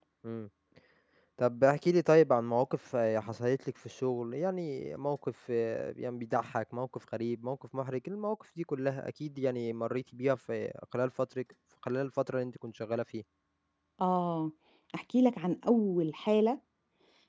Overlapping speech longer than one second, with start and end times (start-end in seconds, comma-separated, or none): none